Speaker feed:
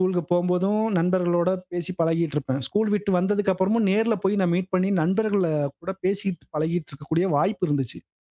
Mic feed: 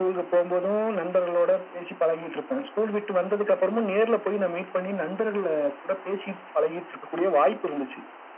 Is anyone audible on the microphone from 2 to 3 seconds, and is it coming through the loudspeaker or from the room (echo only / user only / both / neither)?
echo only